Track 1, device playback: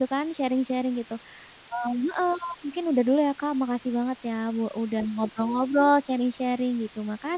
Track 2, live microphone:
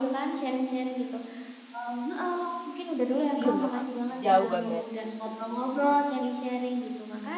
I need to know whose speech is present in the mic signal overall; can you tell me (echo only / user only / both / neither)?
both